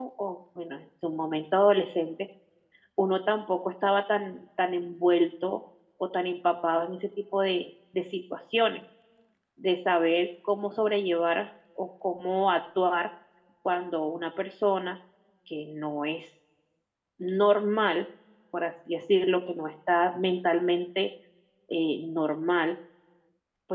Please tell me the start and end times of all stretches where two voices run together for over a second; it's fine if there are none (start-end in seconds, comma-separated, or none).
none